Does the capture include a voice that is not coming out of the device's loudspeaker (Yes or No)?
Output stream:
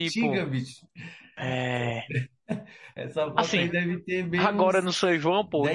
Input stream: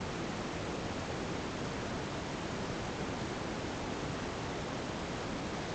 No